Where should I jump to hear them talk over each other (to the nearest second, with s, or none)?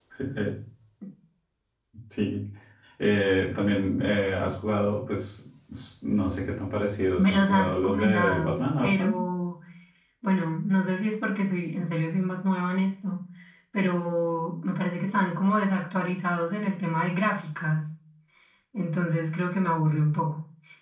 7 s